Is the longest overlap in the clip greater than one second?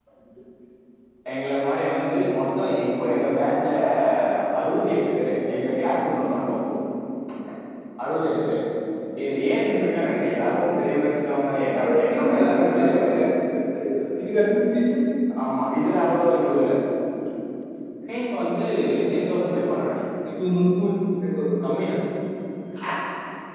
Yes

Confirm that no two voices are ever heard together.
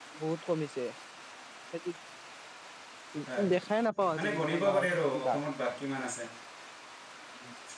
No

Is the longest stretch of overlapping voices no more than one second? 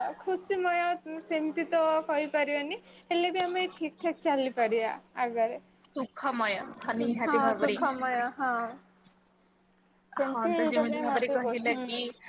No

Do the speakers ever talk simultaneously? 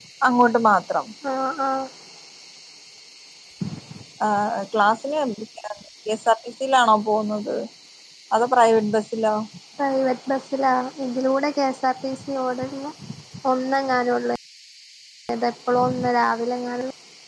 No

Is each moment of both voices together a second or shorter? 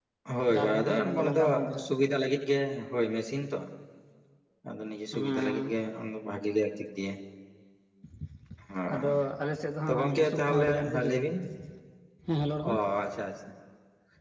No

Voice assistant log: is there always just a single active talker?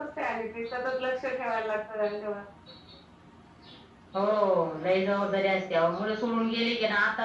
Yes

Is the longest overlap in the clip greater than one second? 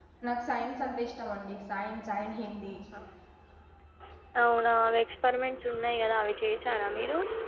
No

